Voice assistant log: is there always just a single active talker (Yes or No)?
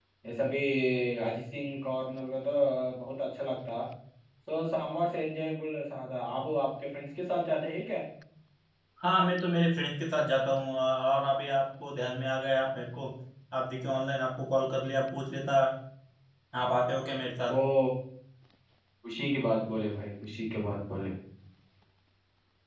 Yes